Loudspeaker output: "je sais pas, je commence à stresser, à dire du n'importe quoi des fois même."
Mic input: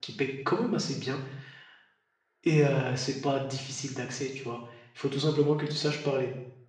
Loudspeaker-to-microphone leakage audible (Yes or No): No